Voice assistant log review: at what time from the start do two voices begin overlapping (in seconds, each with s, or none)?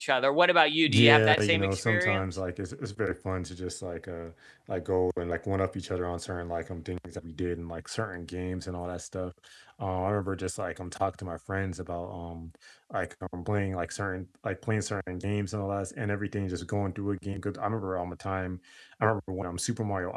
0.9 s